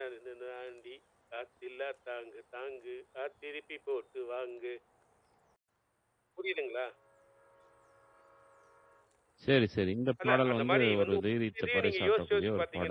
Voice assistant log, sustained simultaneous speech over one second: present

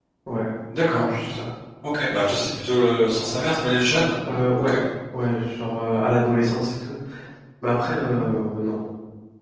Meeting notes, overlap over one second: none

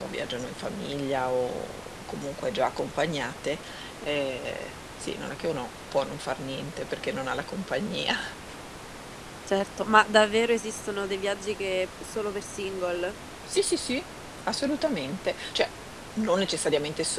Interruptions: none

